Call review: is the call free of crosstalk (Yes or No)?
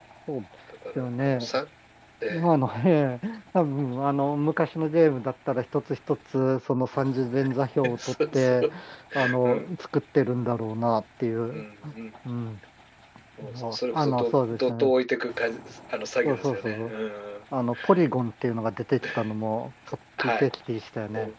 No